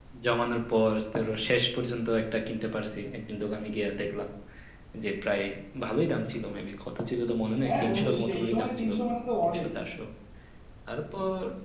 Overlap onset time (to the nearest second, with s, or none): 8 s